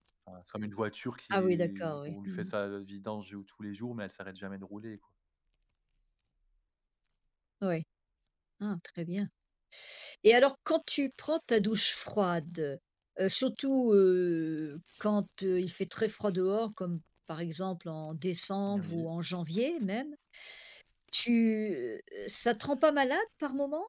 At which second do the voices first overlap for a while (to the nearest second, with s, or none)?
1 s